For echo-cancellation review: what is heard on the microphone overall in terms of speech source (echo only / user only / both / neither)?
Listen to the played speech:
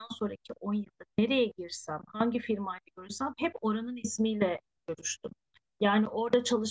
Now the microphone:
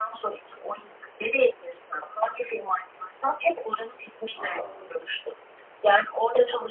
both